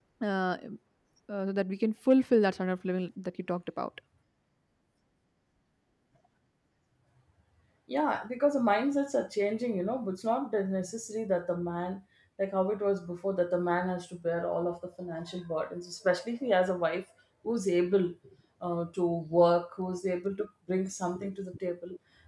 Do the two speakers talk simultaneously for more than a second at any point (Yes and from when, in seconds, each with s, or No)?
No